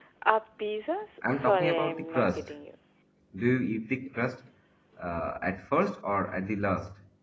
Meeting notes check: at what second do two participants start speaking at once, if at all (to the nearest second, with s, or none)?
1 s